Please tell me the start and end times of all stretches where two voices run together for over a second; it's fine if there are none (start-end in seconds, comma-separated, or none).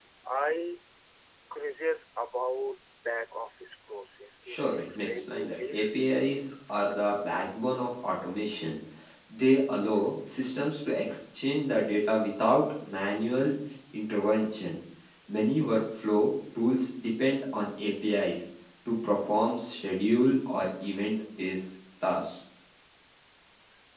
4.5-5.9